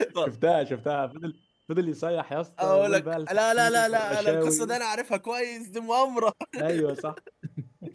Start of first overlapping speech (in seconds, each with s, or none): 2.6 s